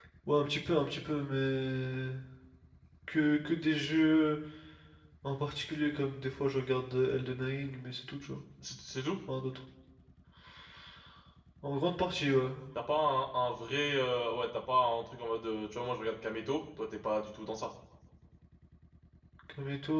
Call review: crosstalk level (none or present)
none